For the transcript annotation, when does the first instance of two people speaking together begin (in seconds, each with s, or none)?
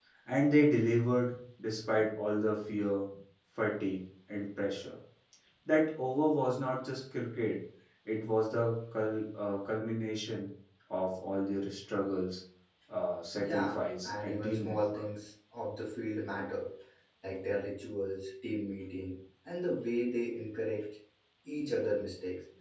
13.3 s